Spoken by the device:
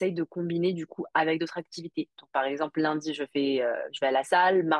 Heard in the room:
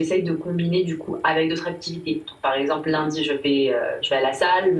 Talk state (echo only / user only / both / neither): echo only